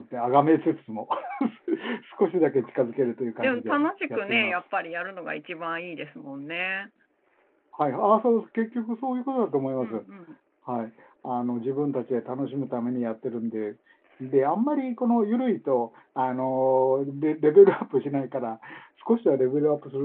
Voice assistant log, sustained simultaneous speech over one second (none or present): present